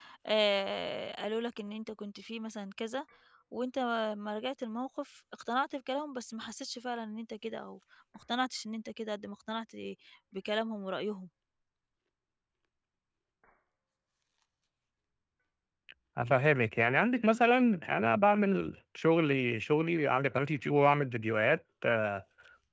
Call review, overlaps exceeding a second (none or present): none